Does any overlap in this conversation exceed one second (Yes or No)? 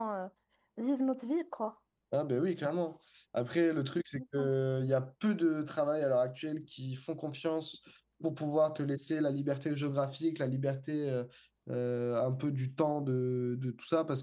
No